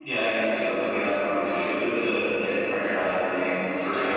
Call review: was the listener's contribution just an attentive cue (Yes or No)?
No